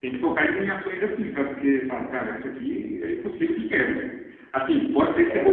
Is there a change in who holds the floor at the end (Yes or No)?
No